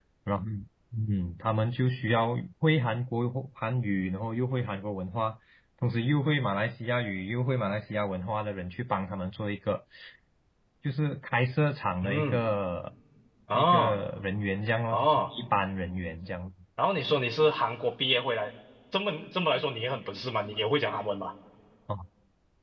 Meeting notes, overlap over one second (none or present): none